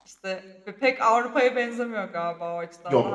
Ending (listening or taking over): taking over